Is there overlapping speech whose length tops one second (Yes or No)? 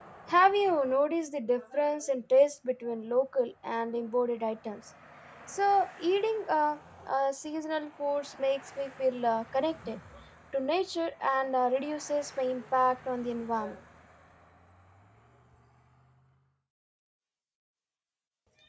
No